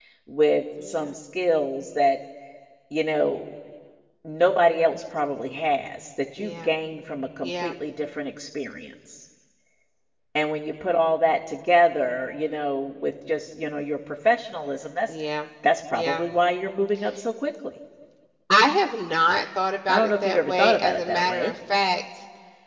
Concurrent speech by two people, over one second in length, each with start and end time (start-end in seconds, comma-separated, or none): 19.9-21.5